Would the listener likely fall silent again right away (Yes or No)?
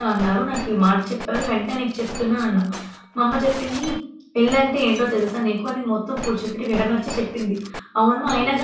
Yes